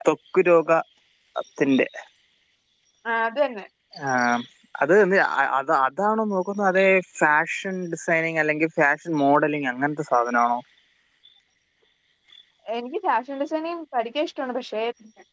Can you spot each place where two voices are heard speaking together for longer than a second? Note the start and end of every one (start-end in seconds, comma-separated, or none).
none